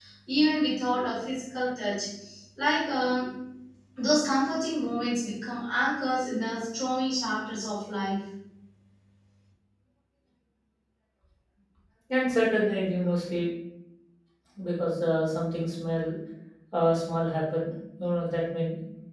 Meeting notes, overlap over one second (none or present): none